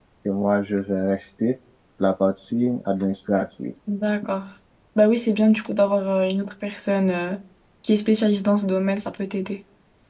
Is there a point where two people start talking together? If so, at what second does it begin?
none

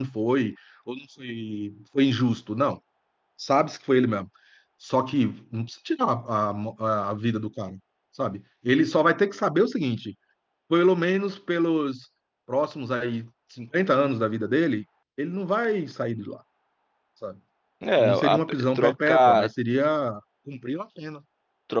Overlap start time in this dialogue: 18.0 s

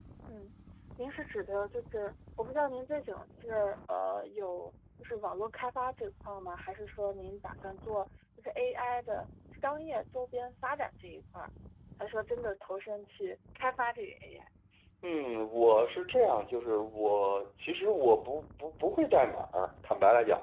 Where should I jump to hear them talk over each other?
none

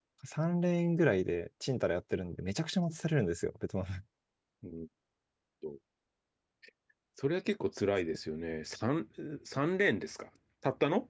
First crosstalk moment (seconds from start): none

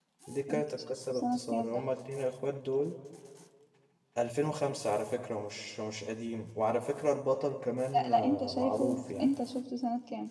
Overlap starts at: 0.5 s

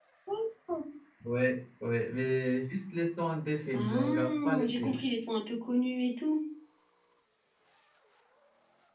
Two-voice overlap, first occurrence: 3.7 s

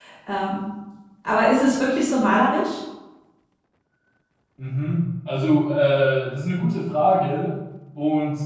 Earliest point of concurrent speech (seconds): none

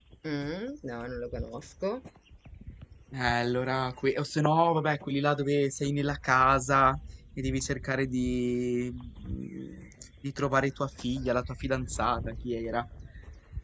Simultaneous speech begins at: none

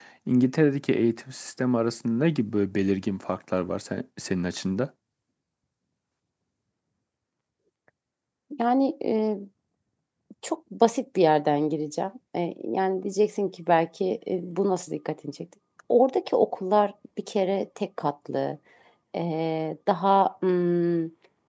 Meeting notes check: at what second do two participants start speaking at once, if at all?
none

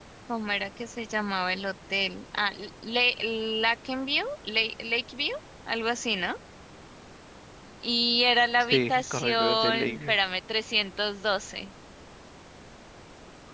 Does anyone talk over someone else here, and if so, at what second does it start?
8.6 s

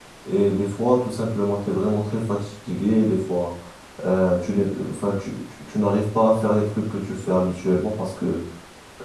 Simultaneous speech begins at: none

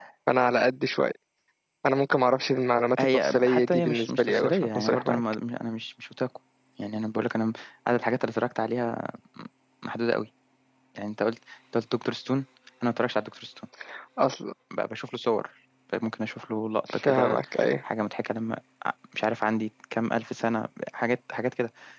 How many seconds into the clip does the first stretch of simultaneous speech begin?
3.0 s

